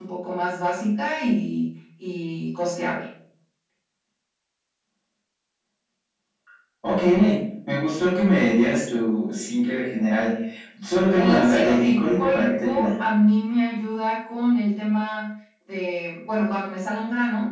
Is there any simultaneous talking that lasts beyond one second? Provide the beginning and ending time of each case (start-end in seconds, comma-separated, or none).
11.2-12.9